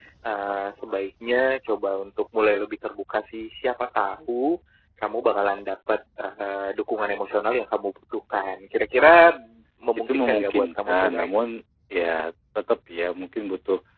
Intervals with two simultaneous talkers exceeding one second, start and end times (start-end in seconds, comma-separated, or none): 10.1-11.3